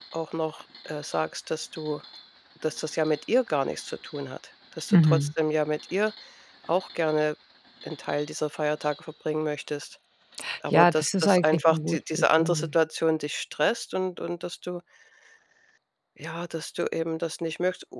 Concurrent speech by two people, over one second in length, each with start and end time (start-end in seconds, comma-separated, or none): 10.7-12.7